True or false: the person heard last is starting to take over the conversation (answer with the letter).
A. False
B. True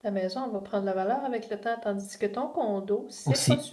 B